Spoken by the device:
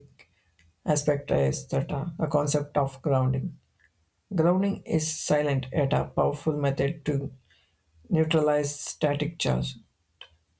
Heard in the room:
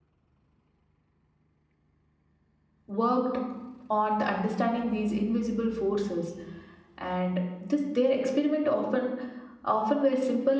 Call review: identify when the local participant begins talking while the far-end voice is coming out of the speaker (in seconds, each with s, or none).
2.9 s